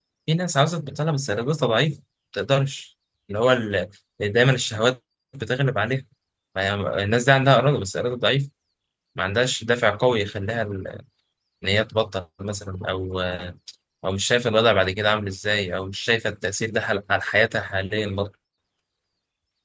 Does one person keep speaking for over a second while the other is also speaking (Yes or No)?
No